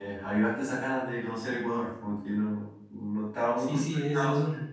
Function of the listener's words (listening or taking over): taking over